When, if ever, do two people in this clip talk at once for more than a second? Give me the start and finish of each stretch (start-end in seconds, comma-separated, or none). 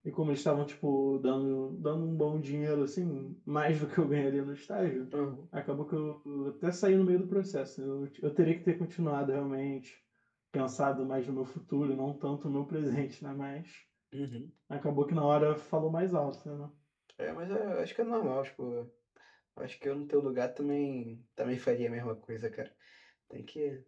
none